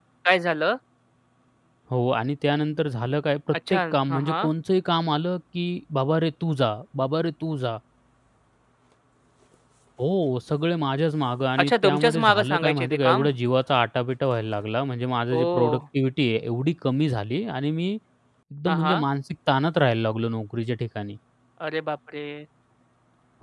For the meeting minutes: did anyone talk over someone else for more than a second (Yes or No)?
Yes